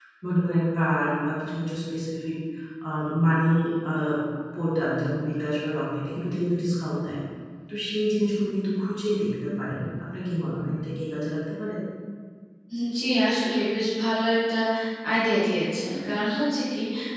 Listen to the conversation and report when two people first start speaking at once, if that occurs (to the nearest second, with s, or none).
none